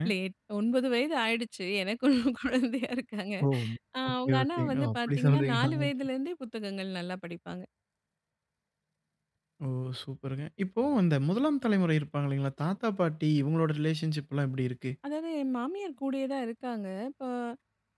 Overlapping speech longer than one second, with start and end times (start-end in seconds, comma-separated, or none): 4.1-5.9